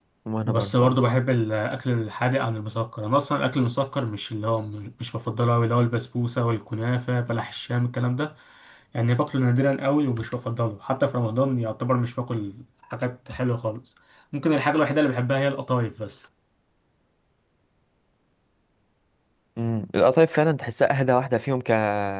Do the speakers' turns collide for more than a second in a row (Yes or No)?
No